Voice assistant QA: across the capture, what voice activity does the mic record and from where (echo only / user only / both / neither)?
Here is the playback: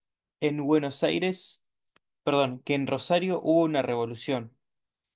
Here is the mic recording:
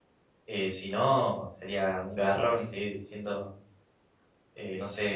user only